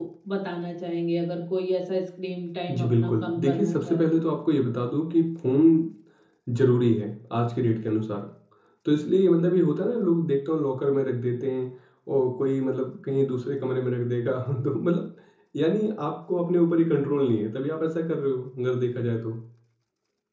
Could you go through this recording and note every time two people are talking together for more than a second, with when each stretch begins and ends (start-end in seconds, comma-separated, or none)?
2.7-4.0